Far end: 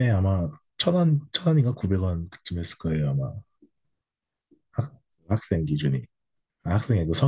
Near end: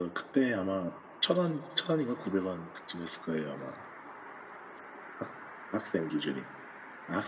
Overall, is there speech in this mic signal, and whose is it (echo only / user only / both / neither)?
echo only